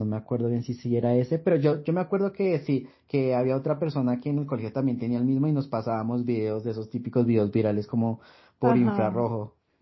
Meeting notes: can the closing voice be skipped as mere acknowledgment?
No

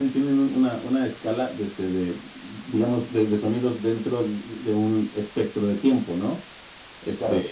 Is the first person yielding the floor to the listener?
No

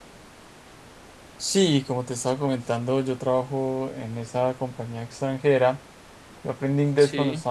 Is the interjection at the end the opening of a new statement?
No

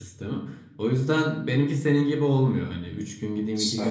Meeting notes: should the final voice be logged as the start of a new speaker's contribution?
No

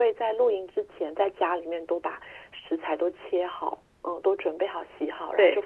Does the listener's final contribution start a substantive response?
No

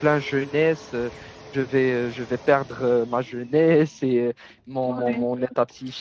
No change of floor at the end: Yes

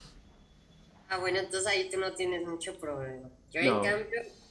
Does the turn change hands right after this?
No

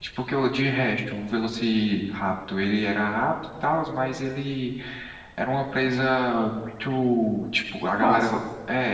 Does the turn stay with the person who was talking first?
Yes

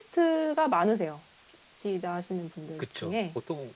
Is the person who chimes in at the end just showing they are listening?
No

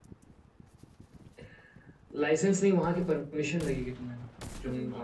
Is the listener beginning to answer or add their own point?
No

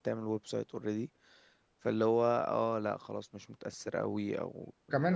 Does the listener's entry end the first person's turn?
Yes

